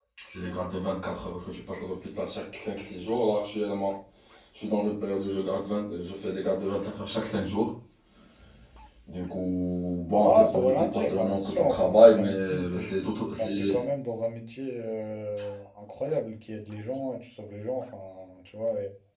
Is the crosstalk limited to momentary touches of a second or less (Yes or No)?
No